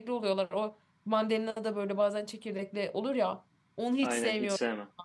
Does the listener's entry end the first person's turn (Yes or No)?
Yes